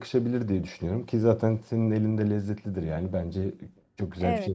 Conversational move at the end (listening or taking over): taking over